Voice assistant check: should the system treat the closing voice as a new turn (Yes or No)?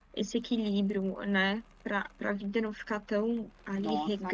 Yes